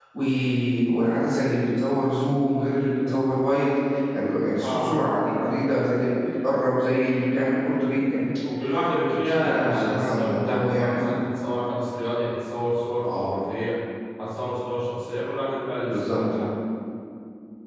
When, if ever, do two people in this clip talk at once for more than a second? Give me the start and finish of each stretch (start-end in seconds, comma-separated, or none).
9.1-11.0